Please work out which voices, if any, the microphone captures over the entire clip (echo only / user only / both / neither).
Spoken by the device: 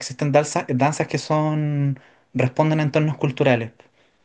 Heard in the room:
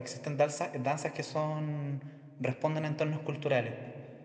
echo only